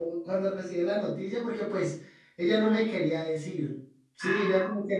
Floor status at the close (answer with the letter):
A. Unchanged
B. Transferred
A